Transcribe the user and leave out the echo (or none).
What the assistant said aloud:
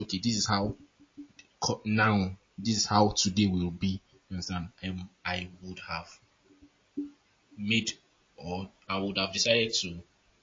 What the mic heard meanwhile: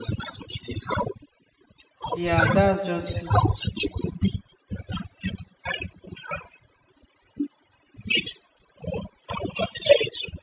Yeah, that's just it.